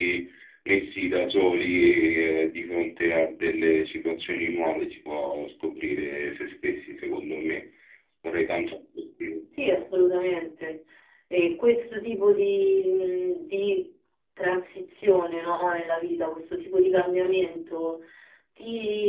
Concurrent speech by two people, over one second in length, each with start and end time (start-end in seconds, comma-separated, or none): none